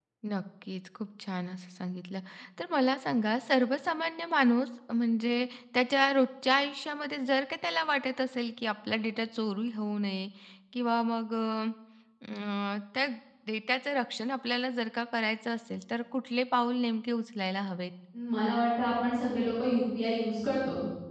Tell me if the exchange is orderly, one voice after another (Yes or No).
Yes